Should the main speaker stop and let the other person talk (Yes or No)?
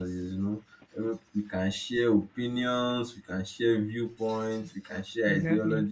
No